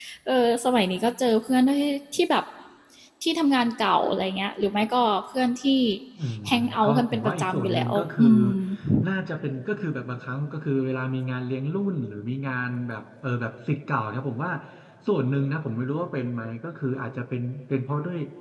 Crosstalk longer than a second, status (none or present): present